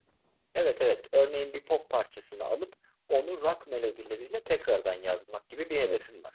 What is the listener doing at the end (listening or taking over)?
taking over